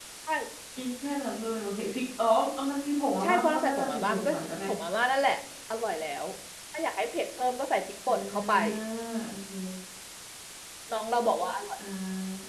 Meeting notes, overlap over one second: present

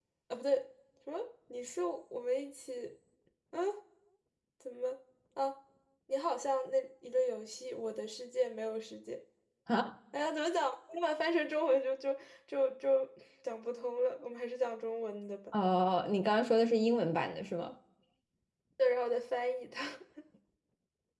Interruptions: none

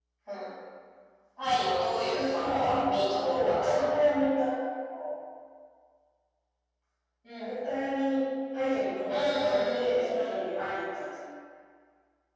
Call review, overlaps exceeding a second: present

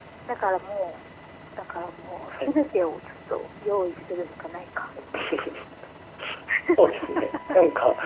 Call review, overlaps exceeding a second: none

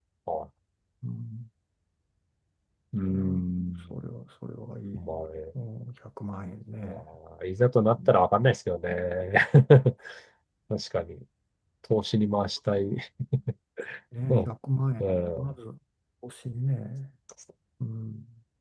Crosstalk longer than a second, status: none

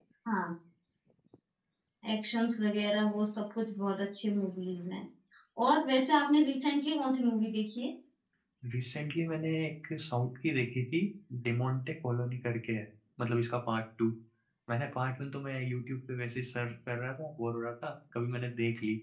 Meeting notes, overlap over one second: none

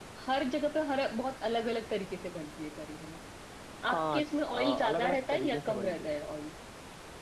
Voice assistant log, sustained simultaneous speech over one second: present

